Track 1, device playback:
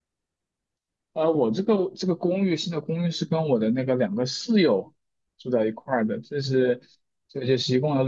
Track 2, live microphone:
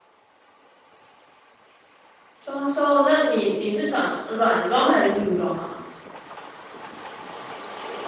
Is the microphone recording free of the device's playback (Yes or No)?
Yes